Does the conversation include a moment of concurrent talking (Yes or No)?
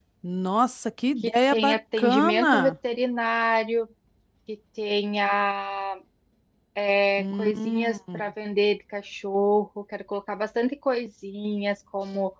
Yes